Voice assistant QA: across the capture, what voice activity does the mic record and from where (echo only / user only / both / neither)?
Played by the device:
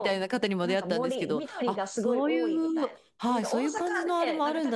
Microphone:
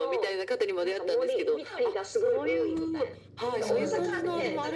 both